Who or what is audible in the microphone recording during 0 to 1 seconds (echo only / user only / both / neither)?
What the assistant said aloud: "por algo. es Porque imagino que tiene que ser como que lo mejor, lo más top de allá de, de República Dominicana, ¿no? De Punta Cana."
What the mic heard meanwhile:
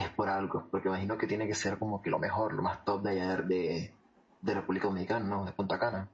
echo only